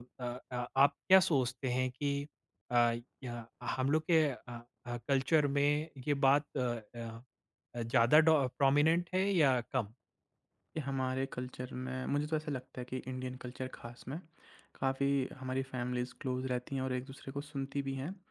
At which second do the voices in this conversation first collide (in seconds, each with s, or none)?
none